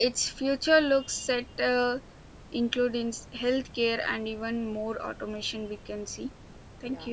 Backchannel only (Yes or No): No